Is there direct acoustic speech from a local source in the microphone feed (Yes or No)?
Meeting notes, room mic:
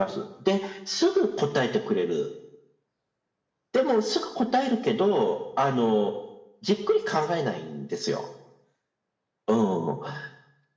No